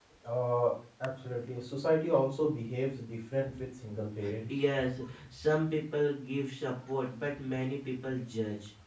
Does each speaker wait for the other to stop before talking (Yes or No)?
Yes